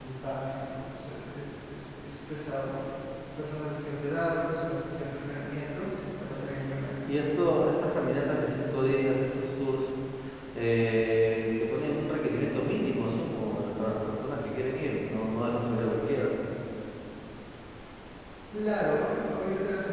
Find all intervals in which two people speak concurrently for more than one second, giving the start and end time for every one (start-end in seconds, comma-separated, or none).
none